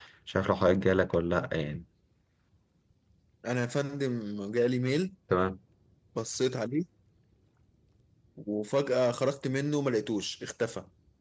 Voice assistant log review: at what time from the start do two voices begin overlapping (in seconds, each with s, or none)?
none